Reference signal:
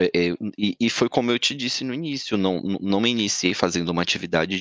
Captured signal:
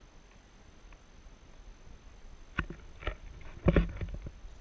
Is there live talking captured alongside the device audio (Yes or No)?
No